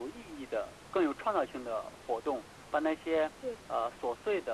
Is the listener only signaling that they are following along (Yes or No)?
Yes